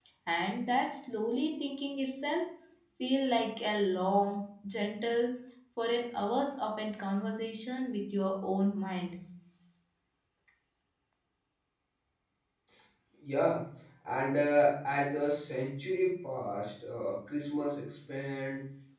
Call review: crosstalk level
none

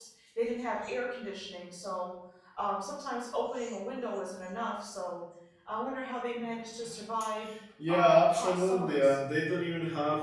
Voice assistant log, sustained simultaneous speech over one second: present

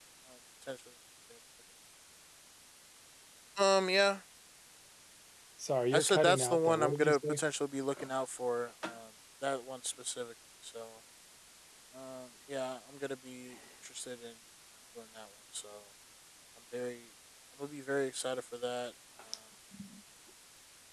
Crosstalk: present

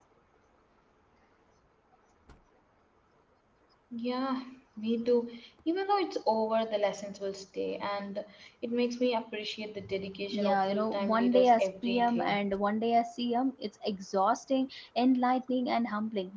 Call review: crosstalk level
present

